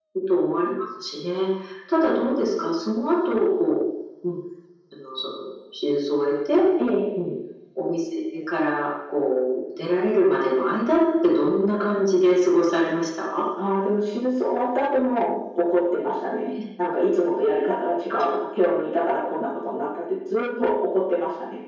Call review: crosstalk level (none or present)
none